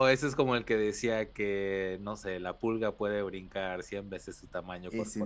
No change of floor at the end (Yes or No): Yes